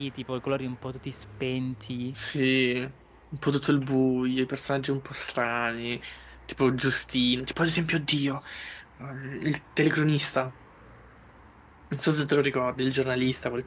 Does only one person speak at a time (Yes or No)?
Yes